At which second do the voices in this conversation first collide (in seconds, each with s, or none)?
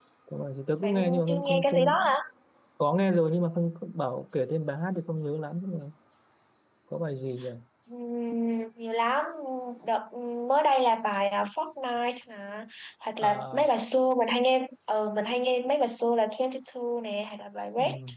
0.8 s